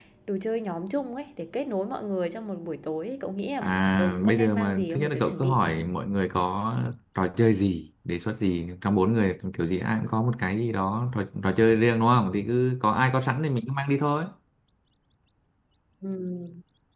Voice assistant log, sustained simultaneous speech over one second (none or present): present